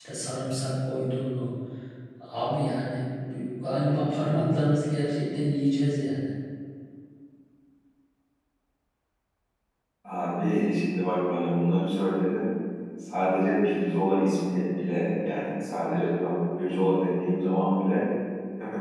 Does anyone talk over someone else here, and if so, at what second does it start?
none

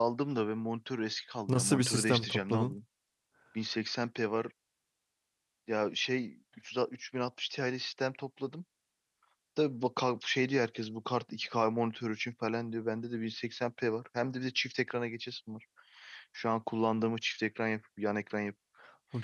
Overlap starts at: 1.5 s

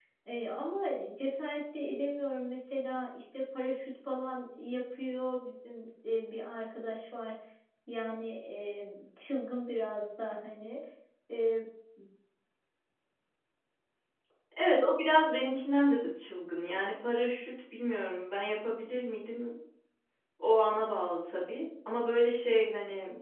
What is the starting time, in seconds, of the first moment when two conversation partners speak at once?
none

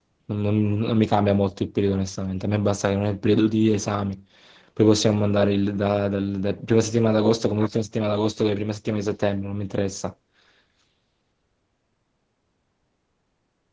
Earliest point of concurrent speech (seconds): none

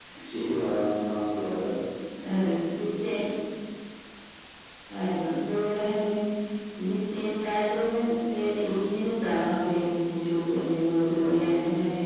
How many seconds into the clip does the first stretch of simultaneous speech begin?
none

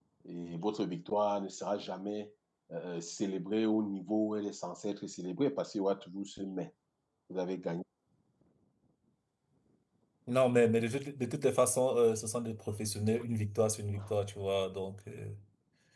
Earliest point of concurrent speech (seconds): none

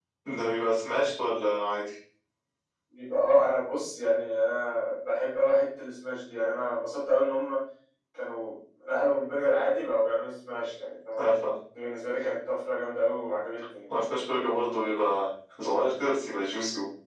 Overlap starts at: none

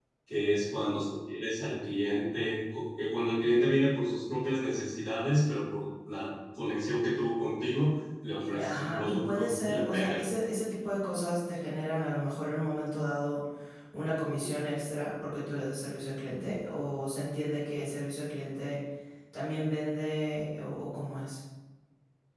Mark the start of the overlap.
8.5 s

